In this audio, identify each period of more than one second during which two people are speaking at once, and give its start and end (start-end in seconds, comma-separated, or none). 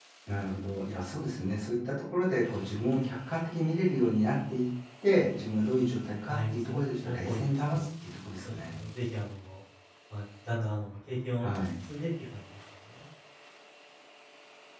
6.3-7.8